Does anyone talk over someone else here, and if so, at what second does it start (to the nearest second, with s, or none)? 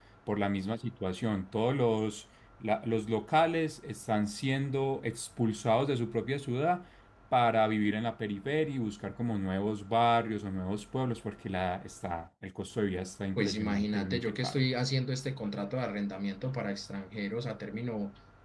13 s